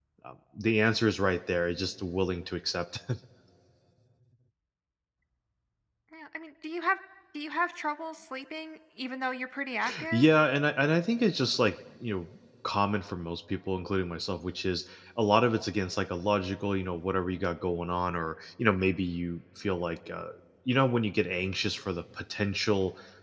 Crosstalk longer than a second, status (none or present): none